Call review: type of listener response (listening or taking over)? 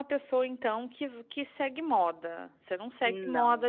listening